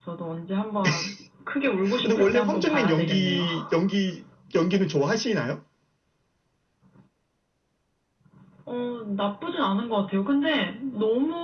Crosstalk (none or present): present